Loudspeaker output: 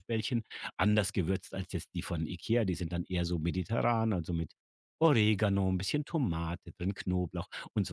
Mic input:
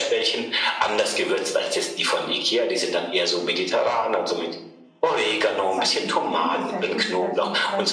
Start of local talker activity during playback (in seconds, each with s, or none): 5.7 s